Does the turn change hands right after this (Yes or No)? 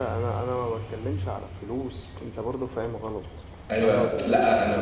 Yes